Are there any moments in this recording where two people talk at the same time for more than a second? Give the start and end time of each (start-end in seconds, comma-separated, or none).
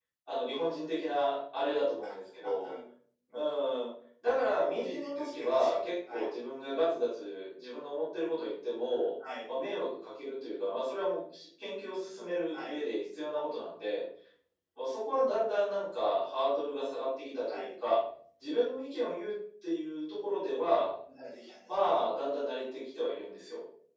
4.6-6.3